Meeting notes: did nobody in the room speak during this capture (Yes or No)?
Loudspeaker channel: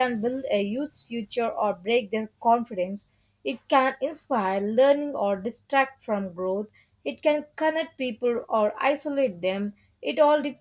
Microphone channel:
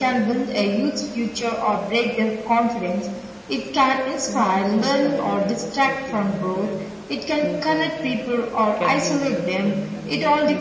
No